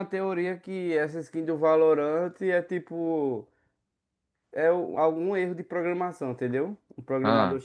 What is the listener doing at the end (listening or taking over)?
listening